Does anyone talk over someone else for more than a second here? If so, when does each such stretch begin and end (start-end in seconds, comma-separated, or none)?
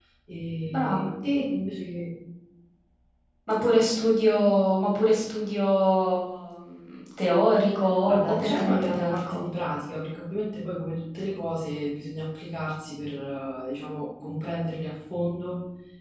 8.1-9.4